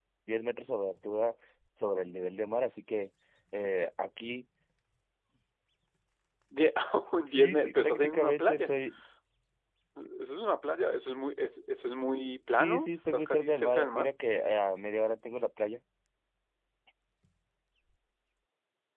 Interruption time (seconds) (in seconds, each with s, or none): 7.3 s